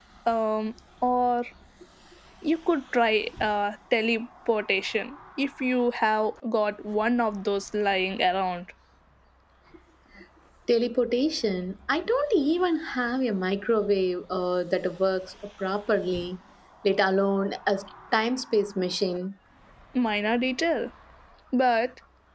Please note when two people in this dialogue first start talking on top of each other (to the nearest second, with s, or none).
none